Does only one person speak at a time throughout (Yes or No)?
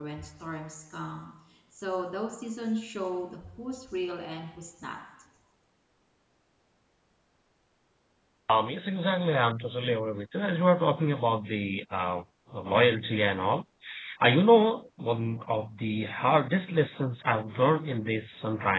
Yes